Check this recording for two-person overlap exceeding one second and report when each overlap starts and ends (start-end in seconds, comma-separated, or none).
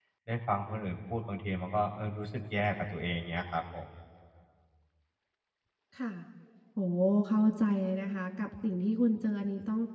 none